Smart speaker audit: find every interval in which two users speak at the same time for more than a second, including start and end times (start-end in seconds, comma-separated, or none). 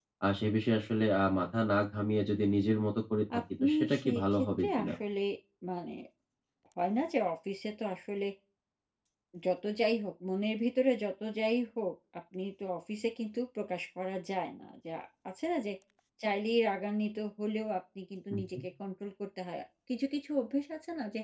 3.4-4.9